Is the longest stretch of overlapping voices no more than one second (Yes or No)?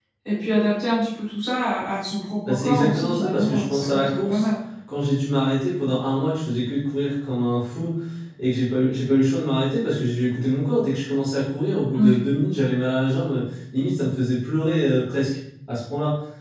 No